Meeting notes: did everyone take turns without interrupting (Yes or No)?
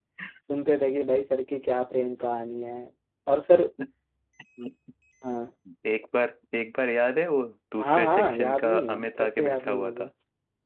No